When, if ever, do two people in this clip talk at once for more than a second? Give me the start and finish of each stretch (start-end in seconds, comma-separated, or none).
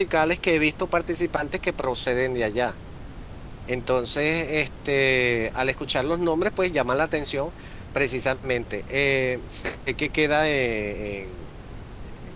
none